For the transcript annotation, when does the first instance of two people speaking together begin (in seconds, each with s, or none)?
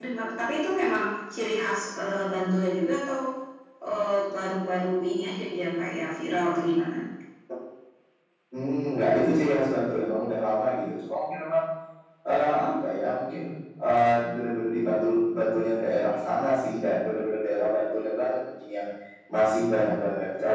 none